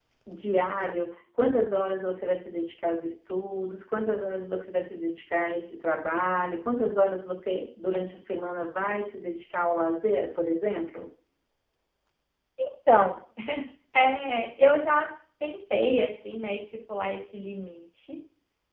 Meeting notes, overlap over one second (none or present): none